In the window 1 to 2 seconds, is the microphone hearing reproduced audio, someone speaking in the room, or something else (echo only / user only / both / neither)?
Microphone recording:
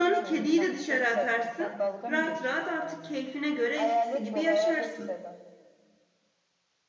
both